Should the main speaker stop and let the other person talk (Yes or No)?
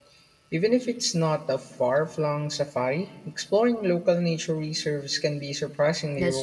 Yes